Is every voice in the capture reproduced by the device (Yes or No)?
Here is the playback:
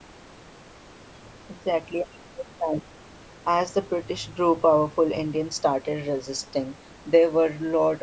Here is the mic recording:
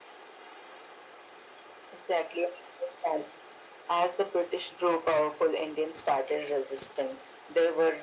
Yes